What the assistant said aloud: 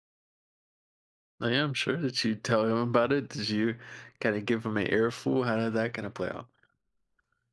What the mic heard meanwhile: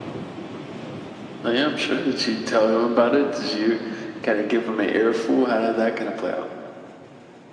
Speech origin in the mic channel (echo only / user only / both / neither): echo only